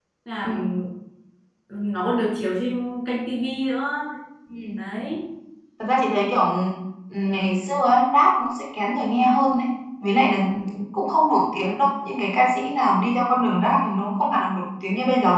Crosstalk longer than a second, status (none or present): none